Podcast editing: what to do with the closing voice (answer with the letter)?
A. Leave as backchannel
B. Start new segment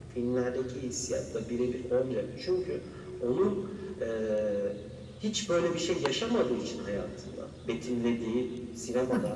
A